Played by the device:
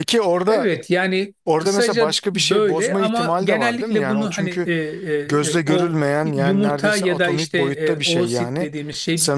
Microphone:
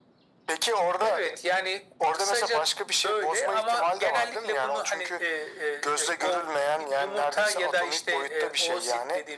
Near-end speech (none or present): none